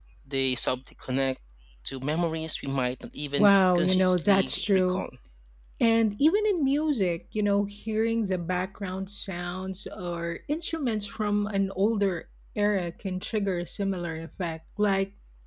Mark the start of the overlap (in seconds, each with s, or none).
3.4 s